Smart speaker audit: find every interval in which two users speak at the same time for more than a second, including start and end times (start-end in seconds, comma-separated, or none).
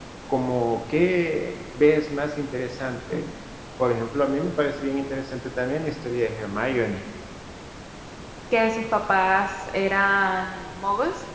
none